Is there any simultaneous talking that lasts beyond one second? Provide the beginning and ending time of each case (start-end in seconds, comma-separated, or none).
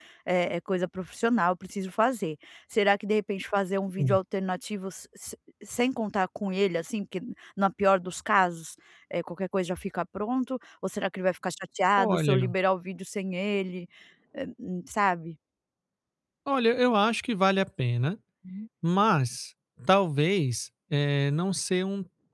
none